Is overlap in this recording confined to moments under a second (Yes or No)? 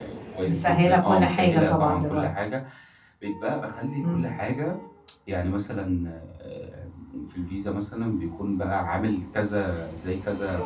No